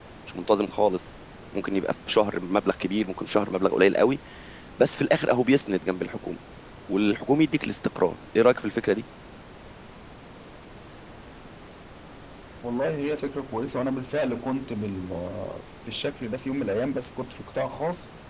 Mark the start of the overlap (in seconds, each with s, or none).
none